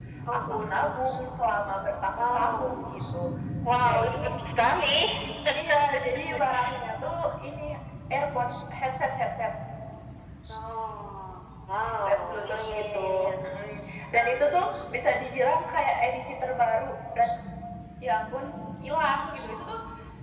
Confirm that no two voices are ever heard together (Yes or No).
No